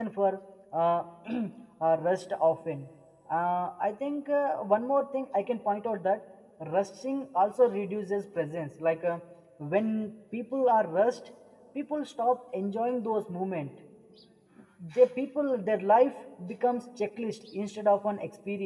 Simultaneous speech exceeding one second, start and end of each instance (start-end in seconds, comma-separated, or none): none